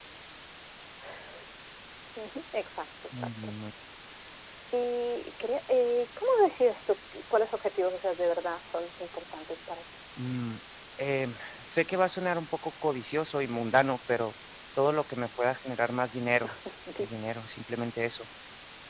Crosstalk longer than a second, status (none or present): none